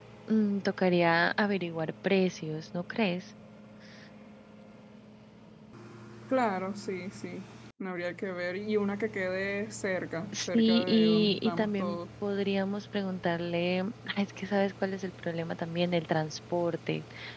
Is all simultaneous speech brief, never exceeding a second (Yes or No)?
No